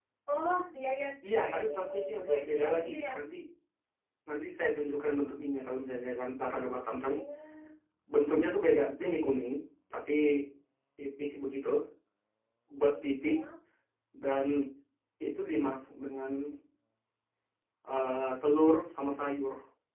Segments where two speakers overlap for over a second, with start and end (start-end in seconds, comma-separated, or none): 1.4-3.0